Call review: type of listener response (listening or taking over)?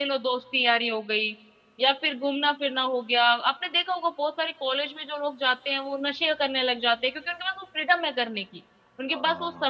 listening